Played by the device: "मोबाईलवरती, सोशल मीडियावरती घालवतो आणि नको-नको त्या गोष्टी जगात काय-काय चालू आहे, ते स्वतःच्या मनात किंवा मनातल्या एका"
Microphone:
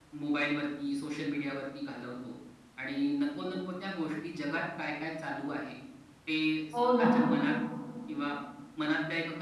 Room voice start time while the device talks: 7 s

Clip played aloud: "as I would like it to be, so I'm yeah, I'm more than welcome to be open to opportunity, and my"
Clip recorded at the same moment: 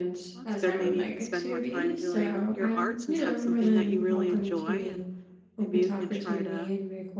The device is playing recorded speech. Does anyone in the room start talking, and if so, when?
0 s

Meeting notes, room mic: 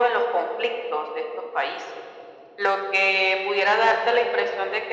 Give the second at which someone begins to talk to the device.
none

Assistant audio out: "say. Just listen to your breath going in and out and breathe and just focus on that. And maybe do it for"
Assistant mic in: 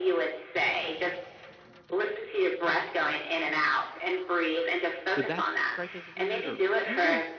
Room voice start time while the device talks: 5 s

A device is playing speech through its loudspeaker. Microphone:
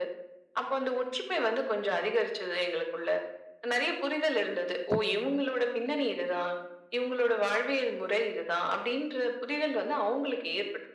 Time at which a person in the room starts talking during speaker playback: 5 s

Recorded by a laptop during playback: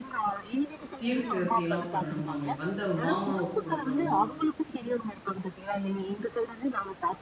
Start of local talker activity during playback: 1 s

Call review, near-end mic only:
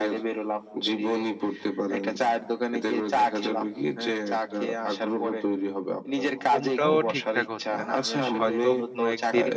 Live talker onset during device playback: 6 s

